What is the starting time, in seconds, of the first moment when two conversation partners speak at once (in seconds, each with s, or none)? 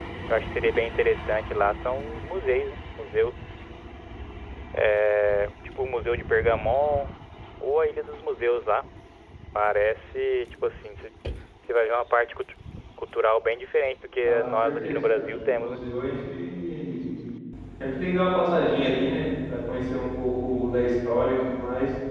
14.2 s